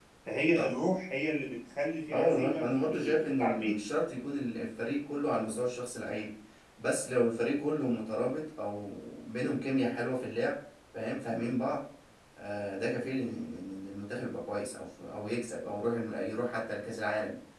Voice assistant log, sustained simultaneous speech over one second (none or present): present